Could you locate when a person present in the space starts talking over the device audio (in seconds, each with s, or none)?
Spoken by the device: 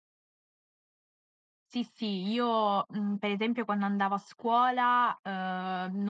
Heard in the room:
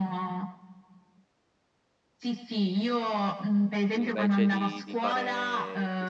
3.9 s